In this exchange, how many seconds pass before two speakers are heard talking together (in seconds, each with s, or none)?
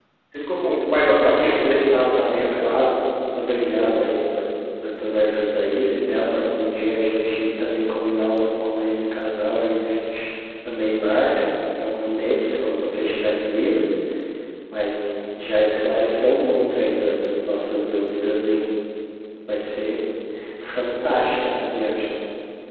0.9 s